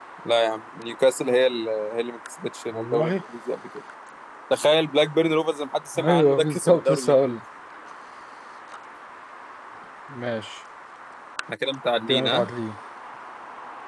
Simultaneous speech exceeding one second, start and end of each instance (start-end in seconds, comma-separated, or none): 6.0-7.4